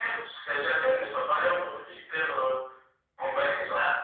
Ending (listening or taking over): listening